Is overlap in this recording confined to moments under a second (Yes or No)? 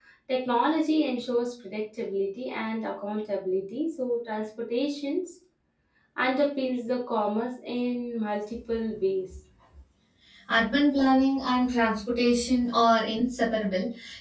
Yes